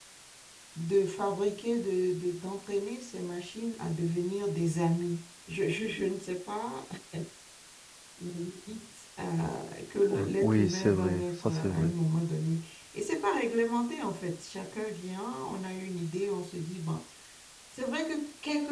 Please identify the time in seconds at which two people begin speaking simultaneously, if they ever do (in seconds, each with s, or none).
10.1 s